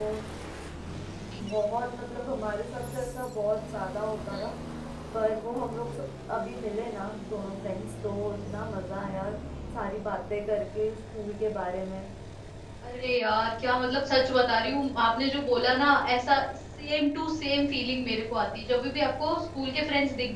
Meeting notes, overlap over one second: none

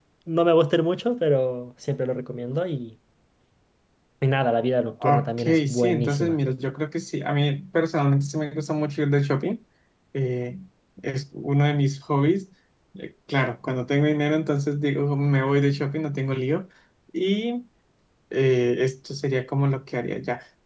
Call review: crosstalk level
present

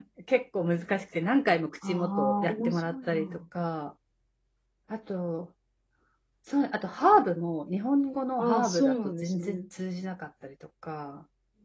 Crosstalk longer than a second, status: present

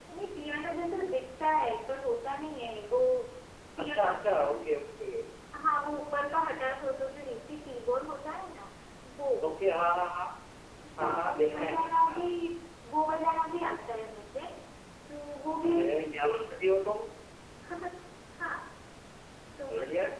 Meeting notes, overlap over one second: present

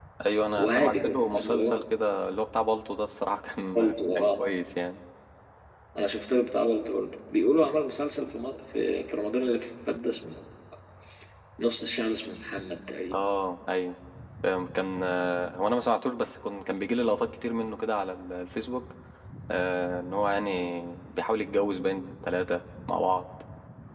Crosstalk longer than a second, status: present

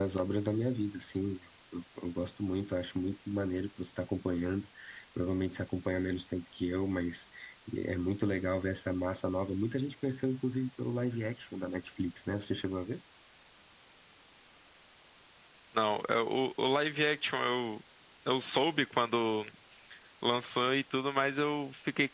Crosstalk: none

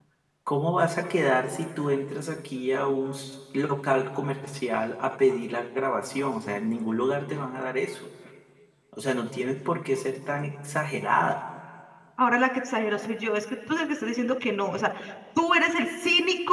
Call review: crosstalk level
none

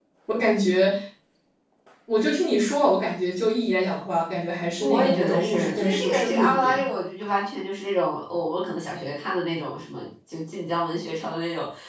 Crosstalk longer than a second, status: present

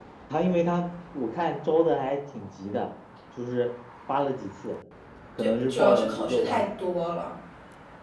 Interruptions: present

